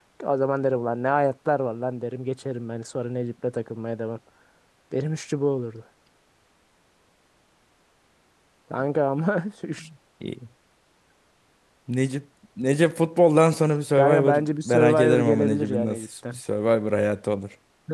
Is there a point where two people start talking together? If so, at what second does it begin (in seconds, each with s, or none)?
14.0 s